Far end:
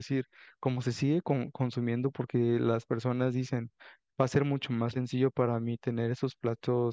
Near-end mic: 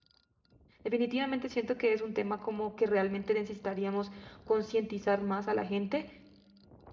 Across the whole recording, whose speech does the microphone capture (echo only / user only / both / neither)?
user only